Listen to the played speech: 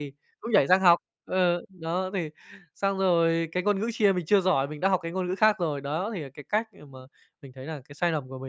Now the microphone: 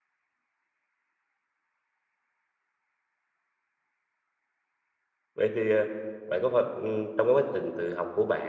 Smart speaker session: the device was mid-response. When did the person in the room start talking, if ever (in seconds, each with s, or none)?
5.3 s